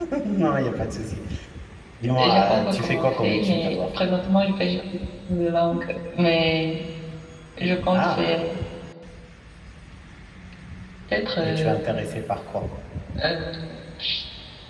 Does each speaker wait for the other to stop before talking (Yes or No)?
No